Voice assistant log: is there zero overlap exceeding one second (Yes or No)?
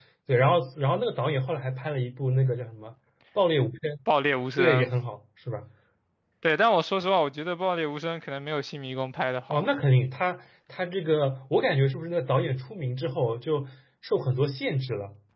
Yes